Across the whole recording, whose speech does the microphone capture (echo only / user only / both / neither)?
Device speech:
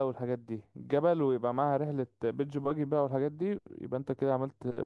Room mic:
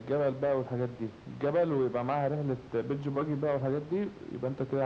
echo only